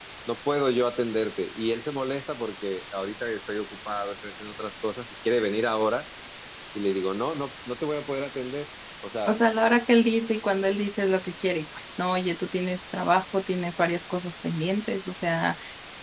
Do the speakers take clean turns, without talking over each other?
Yes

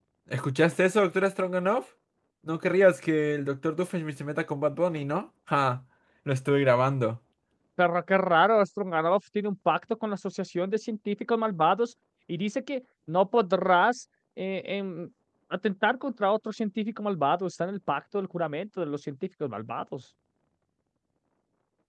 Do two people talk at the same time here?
No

